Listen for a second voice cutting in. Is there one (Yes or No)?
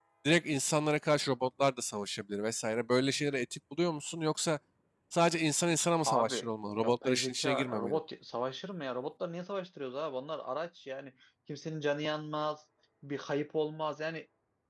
Yes